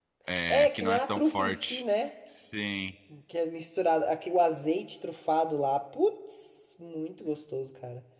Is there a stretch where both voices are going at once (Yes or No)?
Yes